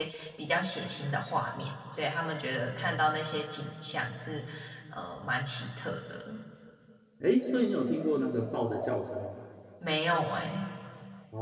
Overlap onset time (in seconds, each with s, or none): none